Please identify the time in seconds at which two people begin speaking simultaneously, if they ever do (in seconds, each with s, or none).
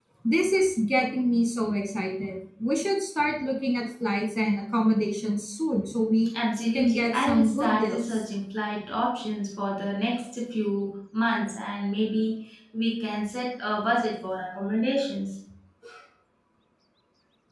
6.7 s